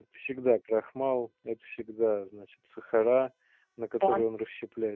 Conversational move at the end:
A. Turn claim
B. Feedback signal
B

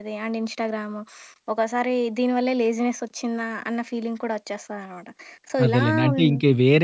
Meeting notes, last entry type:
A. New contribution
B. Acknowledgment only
A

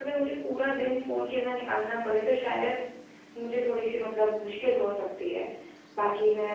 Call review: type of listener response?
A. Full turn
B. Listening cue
B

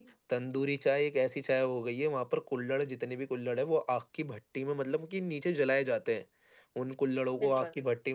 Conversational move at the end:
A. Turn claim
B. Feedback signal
B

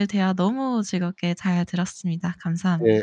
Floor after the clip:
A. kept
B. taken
B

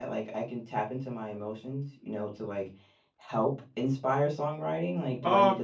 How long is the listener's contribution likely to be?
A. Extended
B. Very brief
A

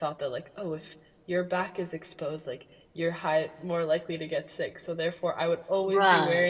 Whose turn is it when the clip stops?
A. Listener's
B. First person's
B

